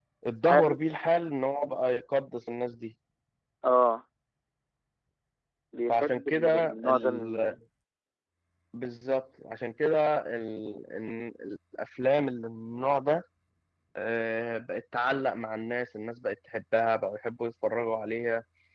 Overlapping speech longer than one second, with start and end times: 5.9-7.4

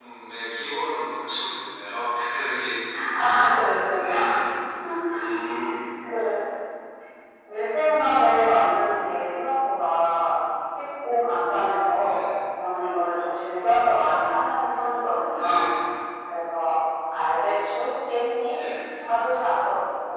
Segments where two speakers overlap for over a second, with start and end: none

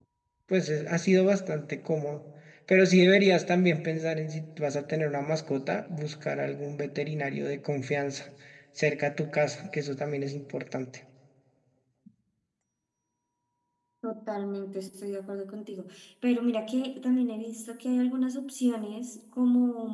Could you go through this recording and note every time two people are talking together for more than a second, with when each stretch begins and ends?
none

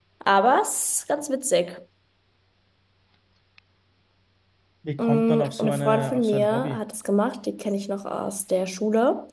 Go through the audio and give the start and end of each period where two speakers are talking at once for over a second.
5.0-6.8

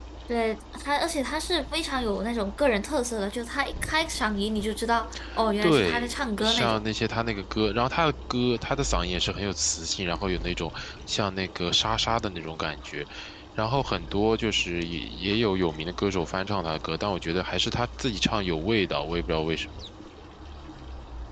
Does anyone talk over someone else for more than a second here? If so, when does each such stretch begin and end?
5.6-6.8

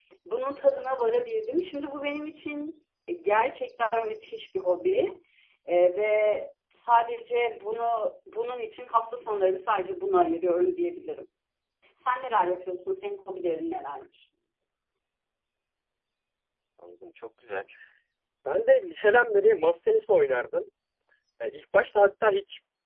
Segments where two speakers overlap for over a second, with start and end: none

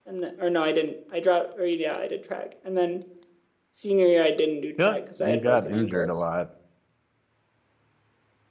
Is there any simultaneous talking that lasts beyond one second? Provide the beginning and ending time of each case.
4.8-6.1

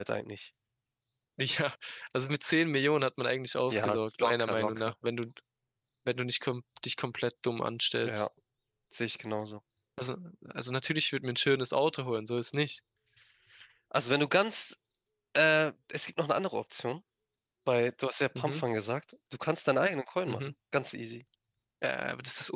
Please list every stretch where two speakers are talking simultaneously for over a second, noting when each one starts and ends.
3.7-4.9

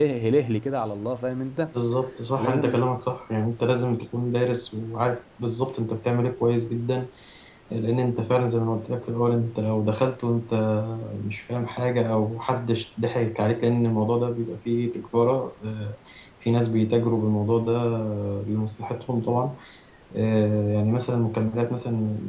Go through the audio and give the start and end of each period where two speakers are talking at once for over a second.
none

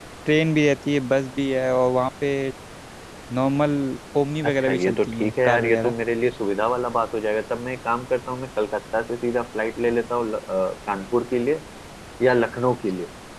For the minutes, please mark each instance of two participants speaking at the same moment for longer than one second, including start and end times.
4.5-5.9

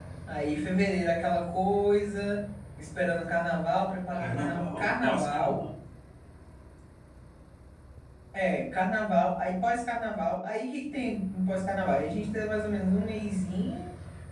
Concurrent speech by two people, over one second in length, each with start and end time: 4.2-5.6

